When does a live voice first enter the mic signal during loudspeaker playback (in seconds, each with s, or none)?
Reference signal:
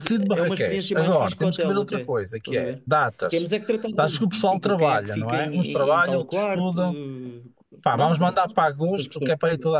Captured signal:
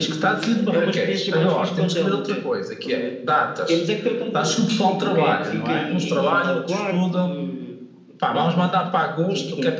none